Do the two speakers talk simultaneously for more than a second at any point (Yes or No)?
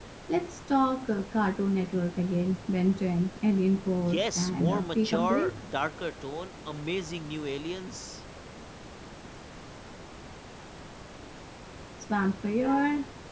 Yes